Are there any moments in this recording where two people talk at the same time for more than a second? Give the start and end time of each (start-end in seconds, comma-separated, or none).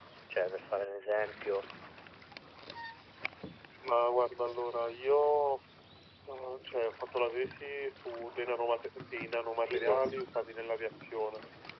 none